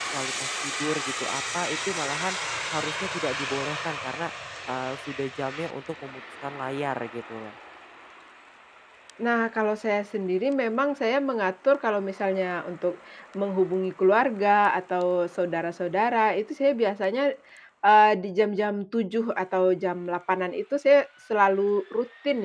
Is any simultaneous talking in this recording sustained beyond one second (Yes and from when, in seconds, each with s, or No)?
No